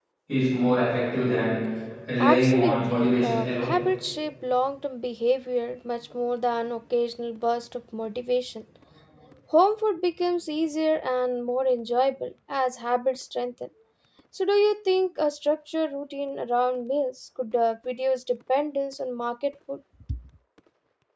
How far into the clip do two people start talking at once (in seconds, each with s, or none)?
2.2 s